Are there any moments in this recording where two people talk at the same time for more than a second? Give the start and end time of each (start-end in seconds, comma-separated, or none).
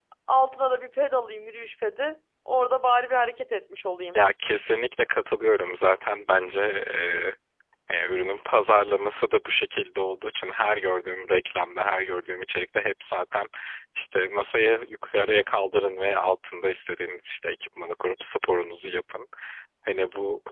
none